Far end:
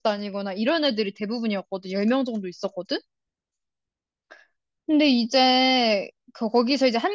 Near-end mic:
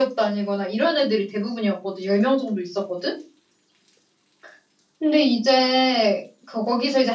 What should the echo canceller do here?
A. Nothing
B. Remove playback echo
B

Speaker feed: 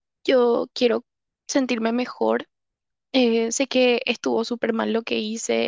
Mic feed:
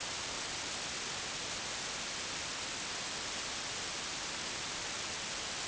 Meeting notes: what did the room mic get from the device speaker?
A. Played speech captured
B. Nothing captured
B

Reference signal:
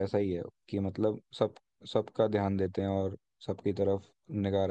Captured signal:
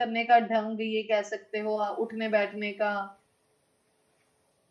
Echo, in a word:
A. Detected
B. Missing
B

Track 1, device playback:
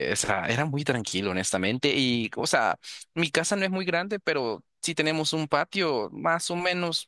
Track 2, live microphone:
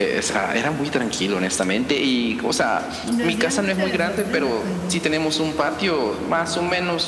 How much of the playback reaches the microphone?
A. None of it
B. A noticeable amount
B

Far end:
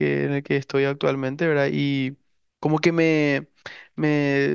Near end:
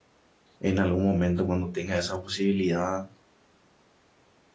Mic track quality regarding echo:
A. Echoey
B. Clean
B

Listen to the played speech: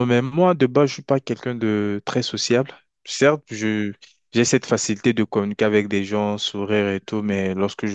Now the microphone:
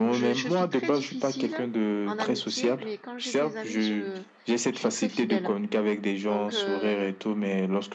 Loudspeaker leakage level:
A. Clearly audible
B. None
A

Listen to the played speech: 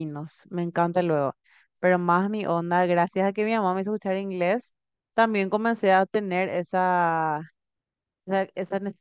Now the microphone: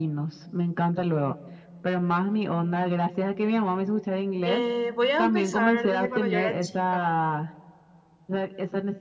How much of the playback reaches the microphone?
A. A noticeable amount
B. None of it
A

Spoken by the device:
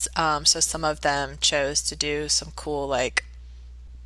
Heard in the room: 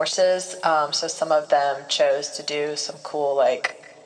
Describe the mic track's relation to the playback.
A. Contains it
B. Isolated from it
A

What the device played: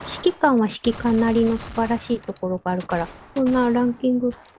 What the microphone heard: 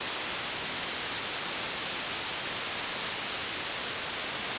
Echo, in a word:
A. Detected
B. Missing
B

